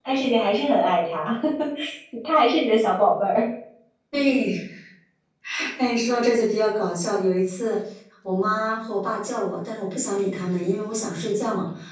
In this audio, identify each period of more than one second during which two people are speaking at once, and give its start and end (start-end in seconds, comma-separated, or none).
none